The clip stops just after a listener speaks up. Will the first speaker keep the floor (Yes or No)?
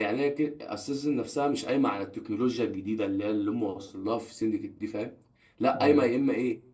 Yes